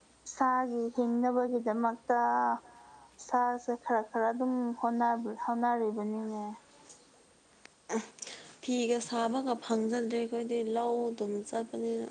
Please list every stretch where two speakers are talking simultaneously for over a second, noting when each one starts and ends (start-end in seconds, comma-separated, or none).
none